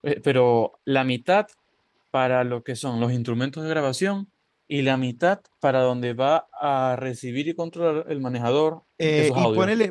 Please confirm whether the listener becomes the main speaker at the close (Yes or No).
Yes